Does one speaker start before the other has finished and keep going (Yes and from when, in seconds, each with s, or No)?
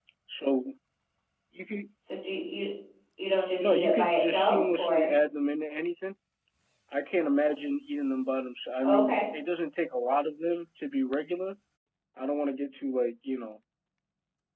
Yes, from 3.6 s